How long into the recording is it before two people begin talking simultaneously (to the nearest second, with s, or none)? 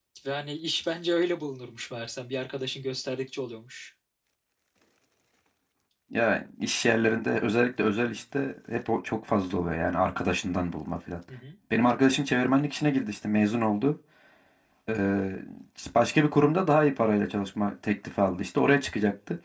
none